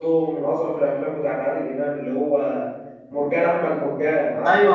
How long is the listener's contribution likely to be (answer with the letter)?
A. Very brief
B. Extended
B